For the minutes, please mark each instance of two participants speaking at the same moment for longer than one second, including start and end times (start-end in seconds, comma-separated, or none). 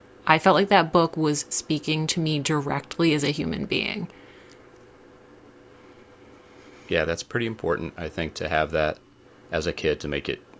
none